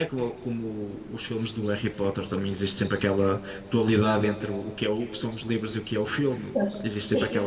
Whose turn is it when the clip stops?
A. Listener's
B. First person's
A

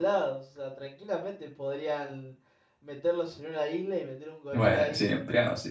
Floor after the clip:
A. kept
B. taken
B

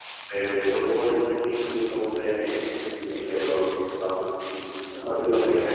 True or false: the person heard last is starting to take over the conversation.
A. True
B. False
B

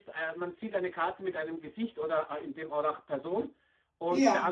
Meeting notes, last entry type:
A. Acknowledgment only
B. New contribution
A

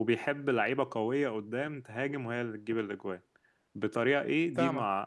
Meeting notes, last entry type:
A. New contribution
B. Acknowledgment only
B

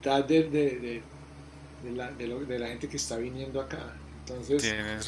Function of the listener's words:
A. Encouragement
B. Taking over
A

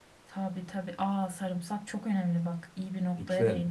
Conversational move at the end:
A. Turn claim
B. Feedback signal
A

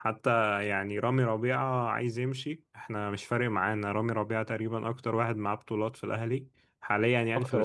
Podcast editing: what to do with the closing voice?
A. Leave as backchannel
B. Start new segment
B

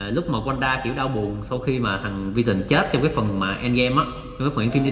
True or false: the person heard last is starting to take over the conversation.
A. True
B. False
A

